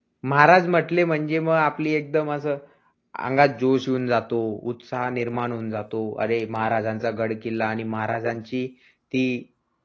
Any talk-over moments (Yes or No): No